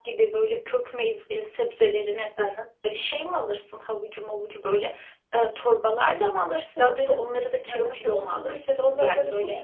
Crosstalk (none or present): present